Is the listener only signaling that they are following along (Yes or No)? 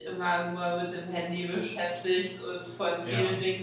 Yes